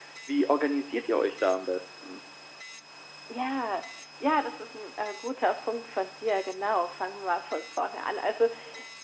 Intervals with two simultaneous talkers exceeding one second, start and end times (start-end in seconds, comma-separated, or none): none